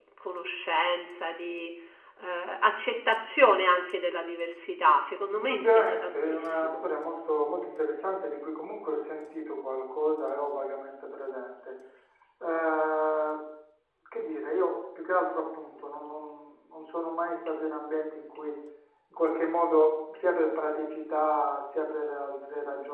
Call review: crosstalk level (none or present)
present